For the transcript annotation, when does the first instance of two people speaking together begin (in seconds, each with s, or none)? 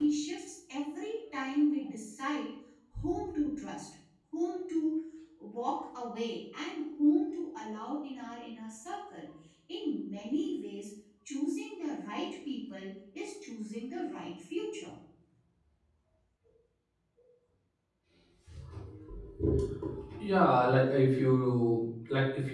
none